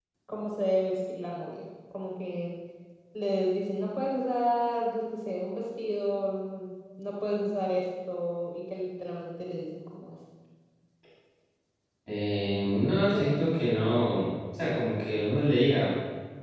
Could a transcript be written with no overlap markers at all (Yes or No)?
Yes